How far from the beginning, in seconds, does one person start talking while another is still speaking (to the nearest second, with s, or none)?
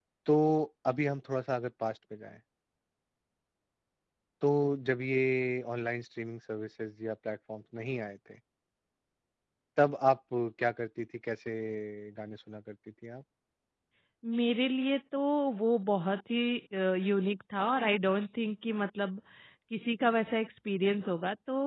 none